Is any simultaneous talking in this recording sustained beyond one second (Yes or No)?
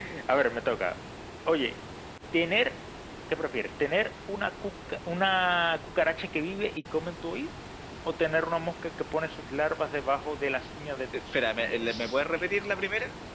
Yes